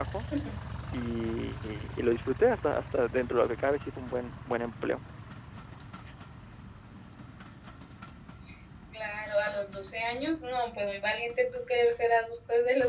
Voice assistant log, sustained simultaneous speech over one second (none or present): none